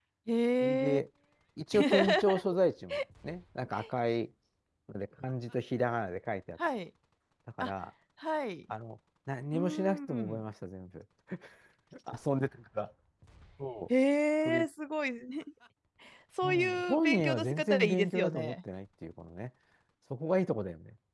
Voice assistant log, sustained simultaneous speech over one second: present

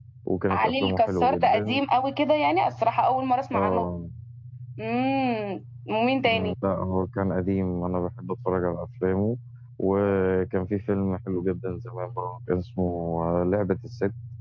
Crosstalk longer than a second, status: present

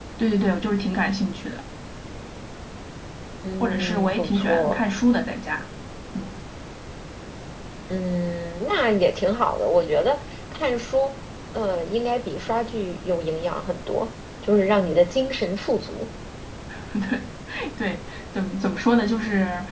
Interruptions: present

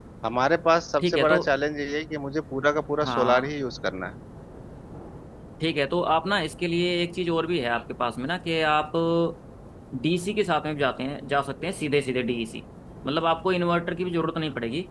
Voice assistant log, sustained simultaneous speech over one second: none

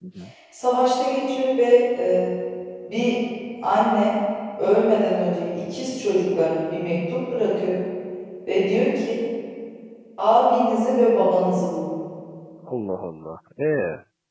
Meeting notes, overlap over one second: none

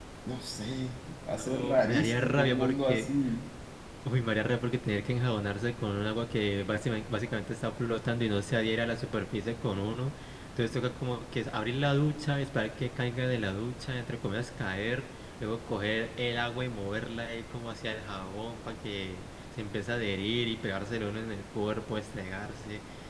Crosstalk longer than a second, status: present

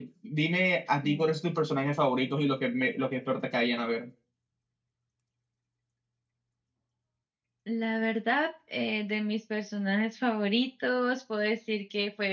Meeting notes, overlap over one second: none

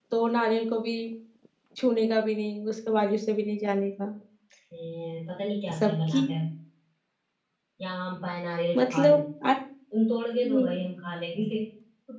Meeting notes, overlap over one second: none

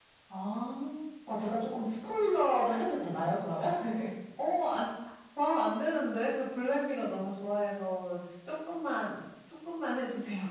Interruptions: none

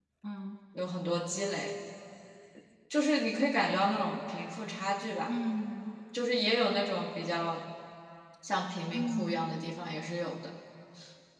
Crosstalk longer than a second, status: none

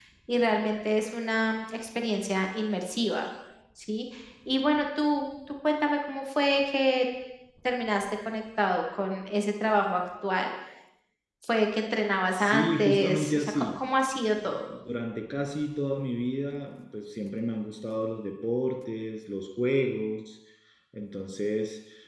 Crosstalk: present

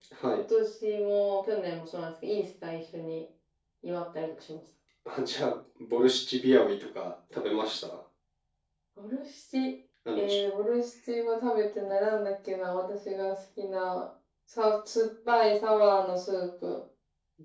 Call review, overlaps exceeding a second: none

